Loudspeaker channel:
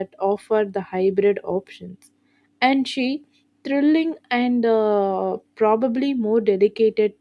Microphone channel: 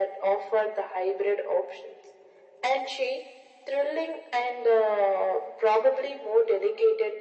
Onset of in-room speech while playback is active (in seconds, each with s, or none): none